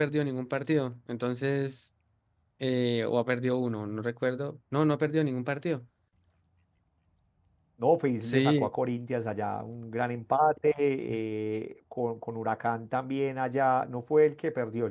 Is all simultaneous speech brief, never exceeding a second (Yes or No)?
Yes